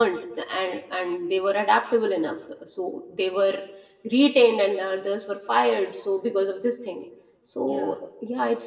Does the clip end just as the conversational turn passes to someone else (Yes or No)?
No